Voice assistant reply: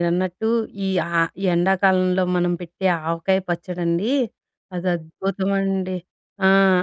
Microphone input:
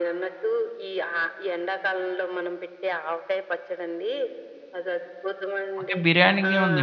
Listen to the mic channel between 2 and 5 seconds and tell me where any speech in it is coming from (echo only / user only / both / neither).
echo only